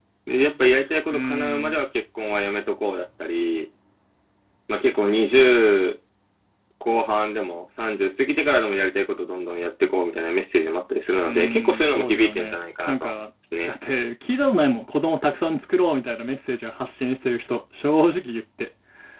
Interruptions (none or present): present